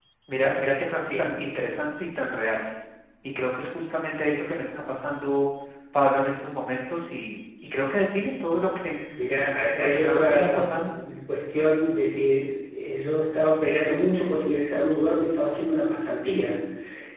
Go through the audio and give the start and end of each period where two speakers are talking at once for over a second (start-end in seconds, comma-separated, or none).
9.7-10.9